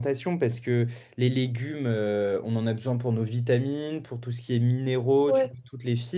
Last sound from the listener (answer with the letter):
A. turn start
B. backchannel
B